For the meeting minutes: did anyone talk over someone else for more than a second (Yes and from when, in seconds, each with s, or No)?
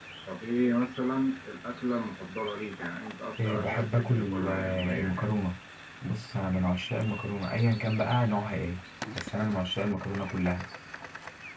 Yes, from 3.4 s